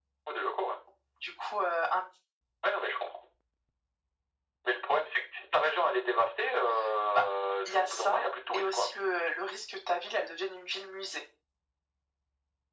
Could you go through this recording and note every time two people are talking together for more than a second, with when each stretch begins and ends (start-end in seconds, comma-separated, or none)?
7.7-8.9